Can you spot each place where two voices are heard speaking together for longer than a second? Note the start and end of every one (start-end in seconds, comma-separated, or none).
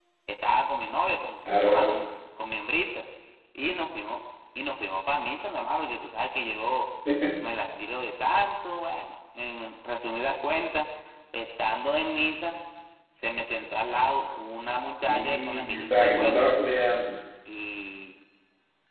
15.1-16.4